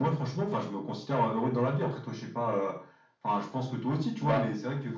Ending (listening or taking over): listening